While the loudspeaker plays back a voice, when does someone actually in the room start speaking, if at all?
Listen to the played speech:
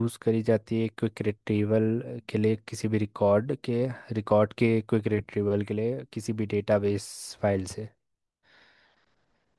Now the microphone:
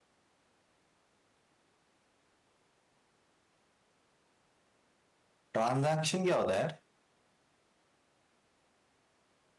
6 s

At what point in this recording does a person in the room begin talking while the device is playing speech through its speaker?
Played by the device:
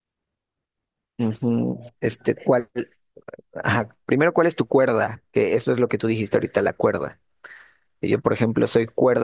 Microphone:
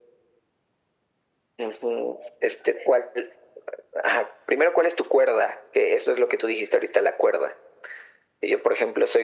none

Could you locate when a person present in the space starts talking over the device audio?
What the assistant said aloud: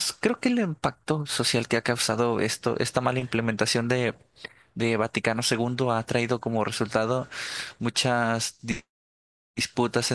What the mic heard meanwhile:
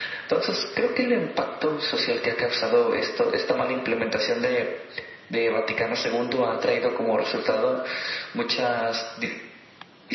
none

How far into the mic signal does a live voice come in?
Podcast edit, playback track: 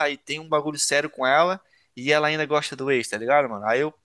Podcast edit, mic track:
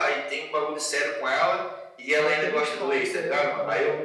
2 s

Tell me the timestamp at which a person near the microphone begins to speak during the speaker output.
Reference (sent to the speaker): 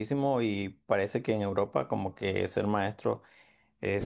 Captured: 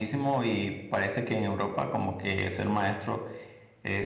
none

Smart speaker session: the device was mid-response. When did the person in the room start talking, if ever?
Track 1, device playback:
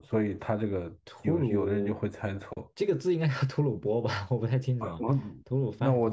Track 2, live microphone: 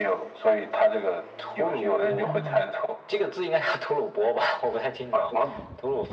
2 s

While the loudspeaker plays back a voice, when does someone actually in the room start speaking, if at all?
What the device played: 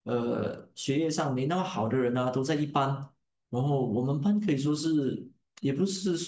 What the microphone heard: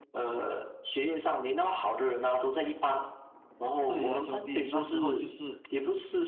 4 s

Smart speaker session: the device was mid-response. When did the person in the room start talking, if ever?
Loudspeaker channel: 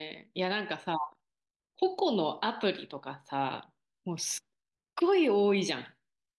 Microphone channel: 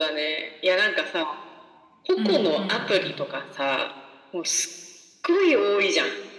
2 s

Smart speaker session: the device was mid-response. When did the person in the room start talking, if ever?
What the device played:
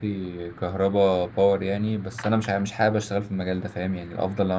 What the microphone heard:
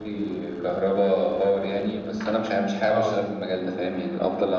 3 s

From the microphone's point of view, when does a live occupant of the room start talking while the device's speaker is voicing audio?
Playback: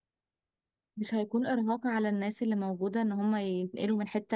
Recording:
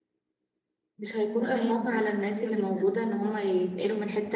1 s

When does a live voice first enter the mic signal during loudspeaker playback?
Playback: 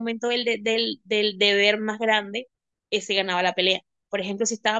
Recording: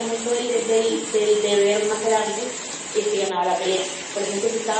none

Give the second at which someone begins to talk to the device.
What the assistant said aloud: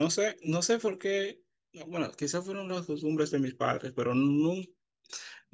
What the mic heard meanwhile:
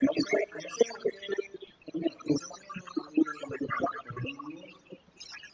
none

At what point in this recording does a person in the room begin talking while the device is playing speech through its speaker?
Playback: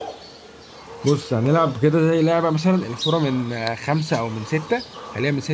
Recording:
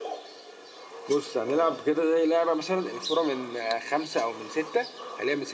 none

